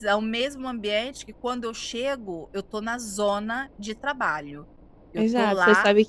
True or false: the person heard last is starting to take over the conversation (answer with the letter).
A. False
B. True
B